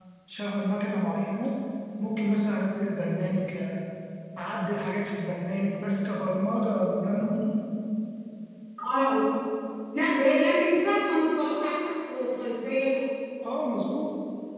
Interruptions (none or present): none